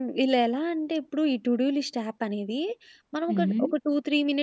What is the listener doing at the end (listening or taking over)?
listening